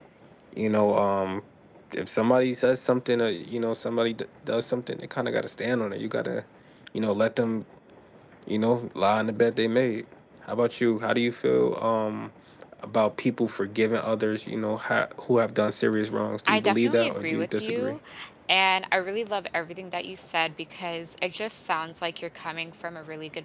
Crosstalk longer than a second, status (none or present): present